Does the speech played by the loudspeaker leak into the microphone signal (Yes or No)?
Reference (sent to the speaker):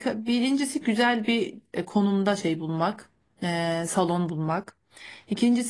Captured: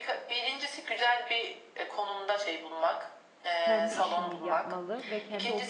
Yes